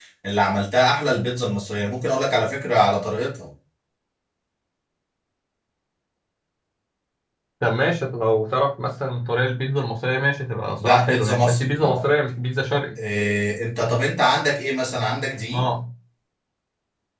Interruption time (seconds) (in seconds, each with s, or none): 10.8 s